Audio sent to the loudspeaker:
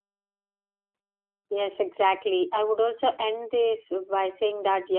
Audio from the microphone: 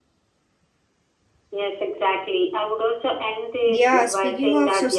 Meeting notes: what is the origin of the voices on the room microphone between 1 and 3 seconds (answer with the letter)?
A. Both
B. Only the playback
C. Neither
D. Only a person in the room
B